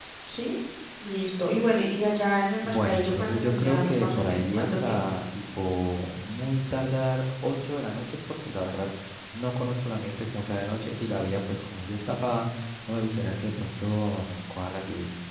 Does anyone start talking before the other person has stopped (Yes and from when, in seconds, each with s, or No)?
Yes, from 2.6 s